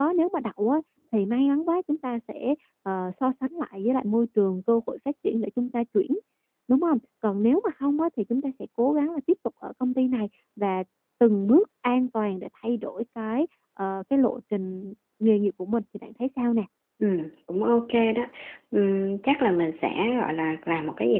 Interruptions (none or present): none